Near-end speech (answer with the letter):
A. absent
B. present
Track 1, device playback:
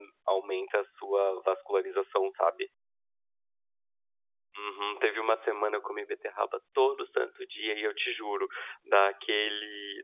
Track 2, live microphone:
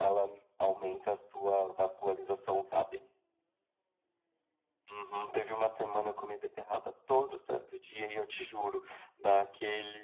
A